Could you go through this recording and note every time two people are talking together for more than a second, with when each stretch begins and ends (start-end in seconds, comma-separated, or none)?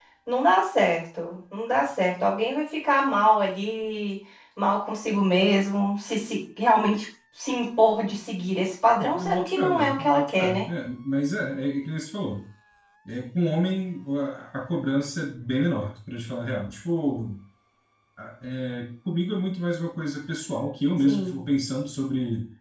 9.2-10.7